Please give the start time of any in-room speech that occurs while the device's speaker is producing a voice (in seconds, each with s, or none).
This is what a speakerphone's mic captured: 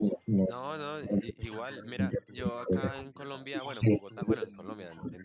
0.5 s